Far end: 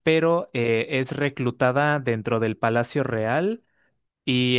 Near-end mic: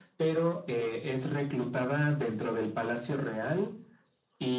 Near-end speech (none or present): none